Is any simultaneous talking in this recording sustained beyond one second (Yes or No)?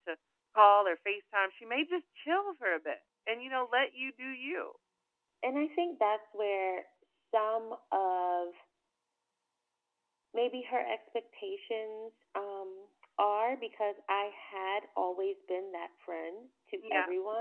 No